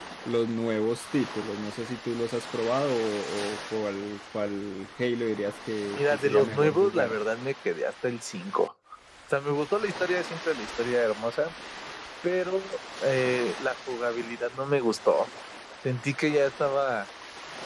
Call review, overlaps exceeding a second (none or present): present